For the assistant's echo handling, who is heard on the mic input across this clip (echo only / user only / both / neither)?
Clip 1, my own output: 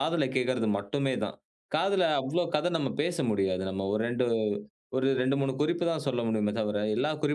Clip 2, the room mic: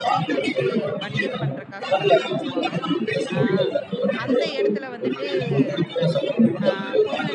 both